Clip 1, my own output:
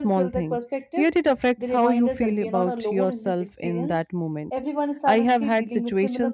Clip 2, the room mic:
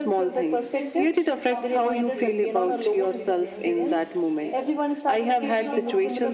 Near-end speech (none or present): present